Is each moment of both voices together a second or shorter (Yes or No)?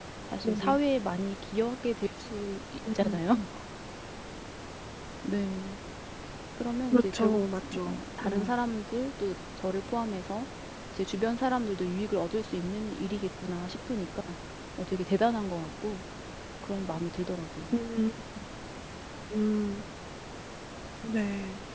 No